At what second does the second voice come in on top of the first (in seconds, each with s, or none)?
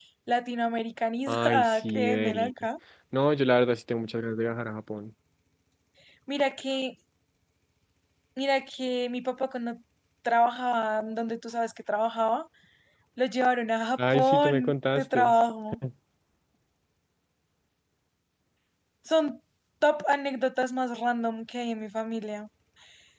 1.3 s